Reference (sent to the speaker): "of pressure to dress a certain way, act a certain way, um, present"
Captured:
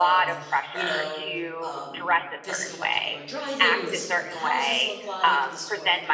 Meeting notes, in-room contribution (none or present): present